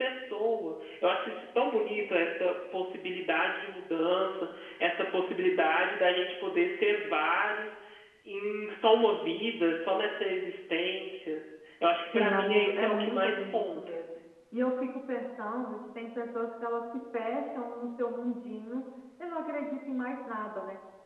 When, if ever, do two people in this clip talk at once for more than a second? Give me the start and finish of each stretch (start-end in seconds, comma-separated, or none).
12.1-14.0